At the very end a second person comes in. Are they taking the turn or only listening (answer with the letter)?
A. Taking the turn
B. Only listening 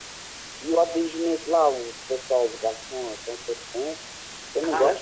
B